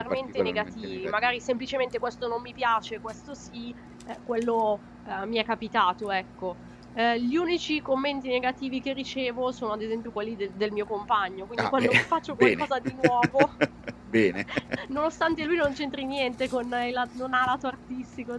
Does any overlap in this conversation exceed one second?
Yes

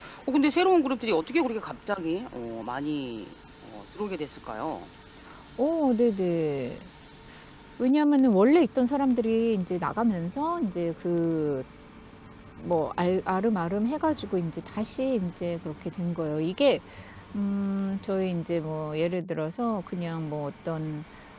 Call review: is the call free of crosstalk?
Yes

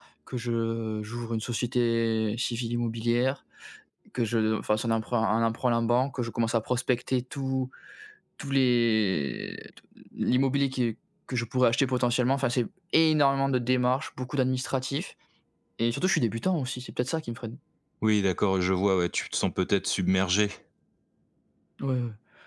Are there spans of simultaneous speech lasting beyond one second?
No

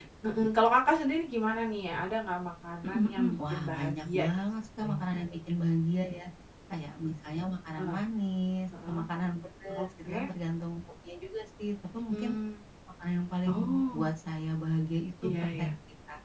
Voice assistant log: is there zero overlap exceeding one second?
No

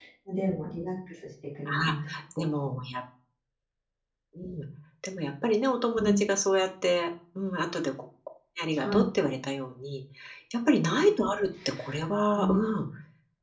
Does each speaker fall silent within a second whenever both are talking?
Yes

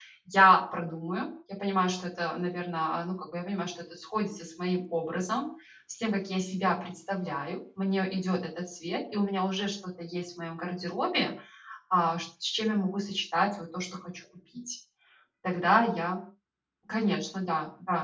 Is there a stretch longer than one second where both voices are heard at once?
No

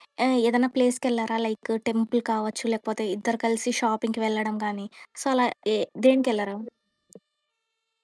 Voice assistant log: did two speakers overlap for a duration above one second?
No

